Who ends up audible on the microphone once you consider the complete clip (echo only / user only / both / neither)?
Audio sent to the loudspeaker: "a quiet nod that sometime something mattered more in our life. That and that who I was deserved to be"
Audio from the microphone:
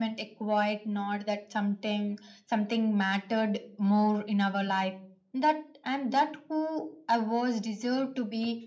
echo only